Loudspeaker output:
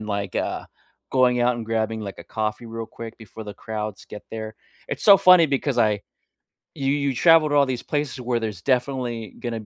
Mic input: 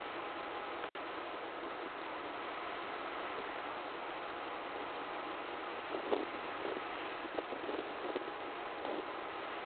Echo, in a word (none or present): none